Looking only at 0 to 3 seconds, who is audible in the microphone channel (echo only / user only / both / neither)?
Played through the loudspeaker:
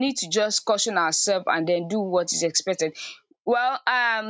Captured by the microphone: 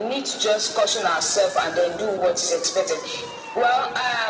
echo only